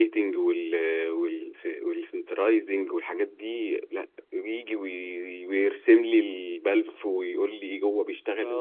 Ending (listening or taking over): taking over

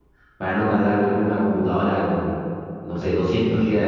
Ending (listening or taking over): listening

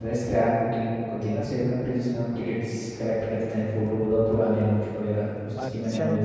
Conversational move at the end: taking over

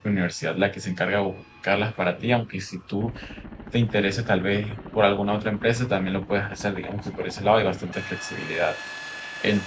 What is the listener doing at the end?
listening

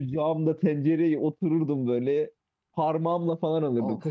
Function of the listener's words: listening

